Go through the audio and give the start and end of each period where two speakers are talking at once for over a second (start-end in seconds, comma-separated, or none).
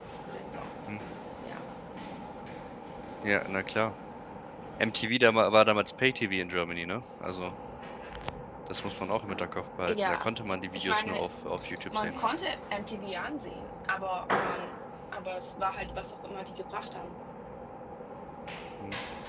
9.9-11.2